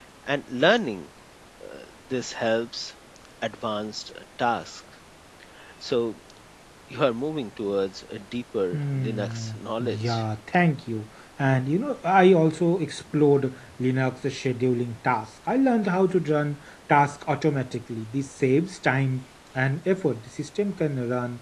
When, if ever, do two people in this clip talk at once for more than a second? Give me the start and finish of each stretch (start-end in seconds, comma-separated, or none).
8.7-10.2